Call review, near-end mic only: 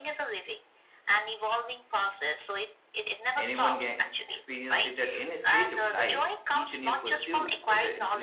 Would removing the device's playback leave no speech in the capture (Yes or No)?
No